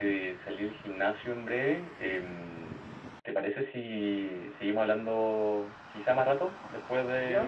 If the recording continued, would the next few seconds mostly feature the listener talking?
Yes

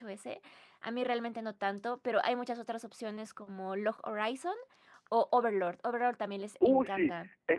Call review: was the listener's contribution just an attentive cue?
No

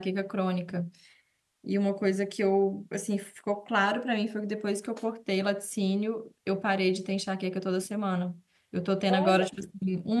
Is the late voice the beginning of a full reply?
No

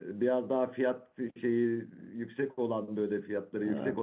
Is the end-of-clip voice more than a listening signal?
No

